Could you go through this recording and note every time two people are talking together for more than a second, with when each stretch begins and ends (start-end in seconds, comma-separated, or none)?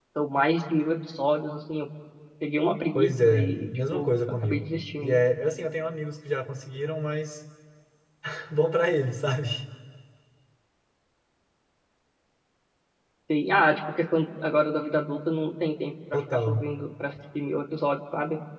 2.9-5.2